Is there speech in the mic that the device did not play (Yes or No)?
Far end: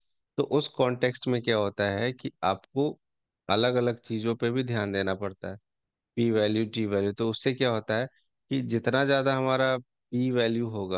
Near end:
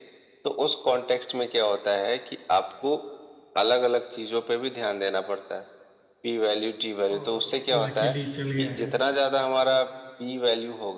Yes